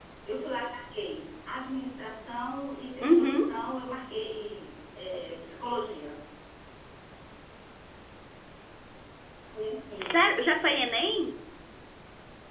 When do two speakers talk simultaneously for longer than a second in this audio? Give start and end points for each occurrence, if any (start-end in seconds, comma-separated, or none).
none